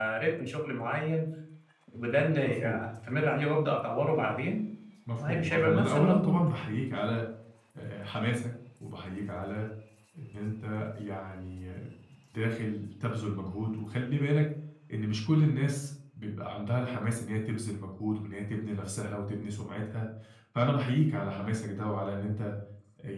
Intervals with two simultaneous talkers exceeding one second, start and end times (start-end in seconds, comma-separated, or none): 5.2-6.4